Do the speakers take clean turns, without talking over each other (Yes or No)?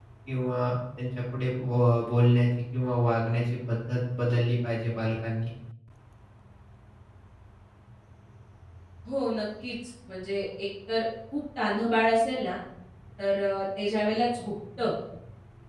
Yes